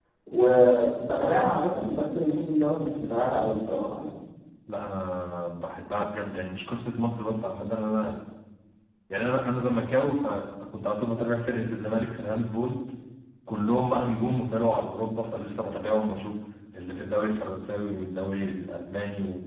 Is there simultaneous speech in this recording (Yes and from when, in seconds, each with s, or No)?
No